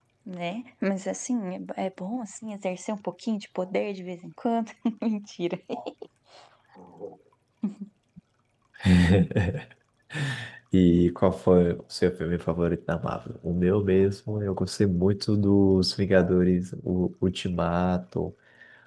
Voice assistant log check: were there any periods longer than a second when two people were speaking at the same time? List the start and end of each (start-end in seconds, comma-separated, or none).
none